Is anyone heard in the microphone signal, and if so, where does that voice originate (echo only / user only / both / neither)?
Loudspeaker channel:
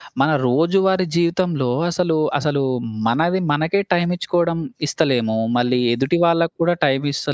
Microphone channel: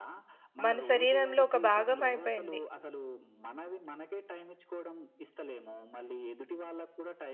both